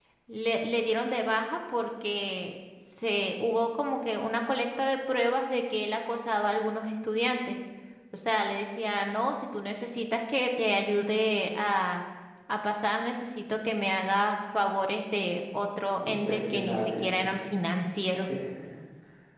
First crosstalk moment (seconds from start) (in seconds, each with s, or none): 16.0 s